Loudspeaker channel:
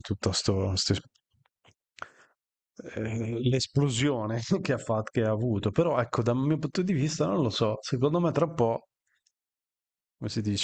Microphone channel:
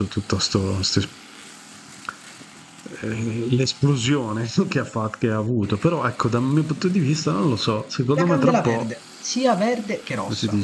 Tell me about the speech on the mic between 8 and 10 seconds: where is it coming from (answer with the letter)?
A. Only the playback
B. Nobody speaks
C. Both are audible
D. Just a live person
C